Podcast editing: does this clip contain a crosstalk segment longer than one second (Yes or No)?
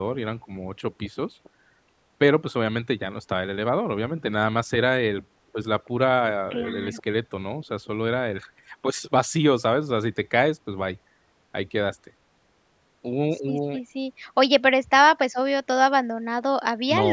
No